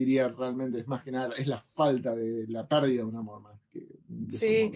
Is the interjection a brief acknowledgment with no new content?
No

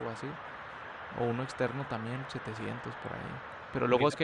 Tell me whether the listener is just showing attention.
Yes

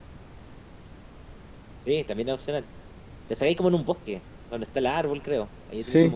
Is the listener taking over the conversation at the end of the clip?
Yes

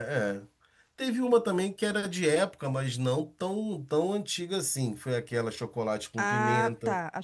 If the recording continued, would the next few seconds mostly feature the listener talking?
Yes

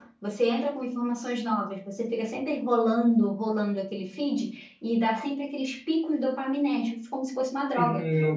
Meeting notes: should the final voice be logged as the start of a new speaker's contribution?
Yes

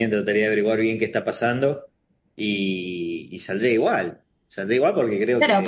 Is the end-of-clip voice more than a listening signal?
Yes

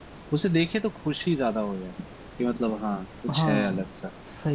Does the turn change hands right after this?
Yes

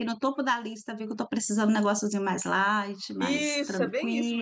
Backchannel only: No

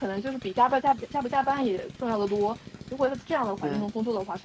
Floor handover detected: No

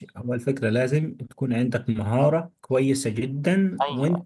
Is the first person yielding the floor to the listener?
No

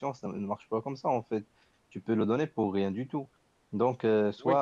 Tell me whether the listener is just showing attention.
Yes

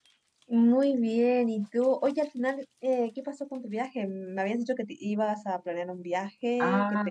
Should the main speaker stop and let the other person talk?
Yes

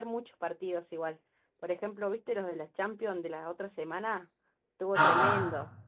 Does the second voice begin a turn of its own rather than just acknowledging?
Yes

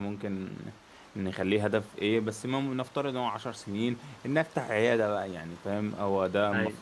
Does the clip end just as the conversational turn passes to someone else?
No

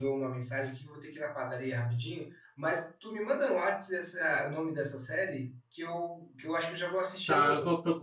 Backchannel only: No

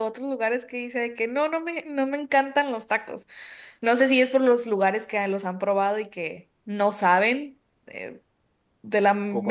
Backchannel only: Yes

